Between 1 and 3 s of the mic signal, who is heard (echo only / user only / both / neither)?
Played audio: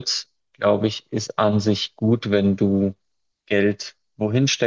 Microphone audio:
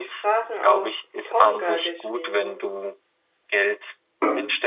both